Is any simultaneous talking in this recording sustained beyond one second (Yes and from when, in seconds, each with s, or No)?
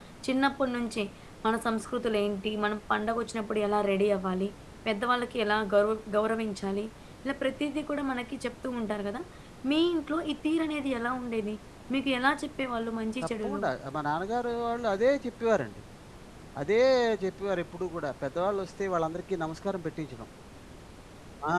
No